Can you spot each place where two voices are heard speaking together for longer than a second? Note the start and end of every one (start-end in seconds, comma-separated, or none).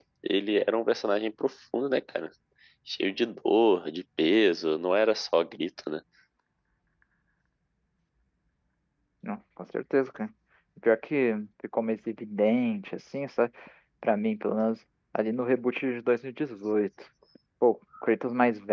none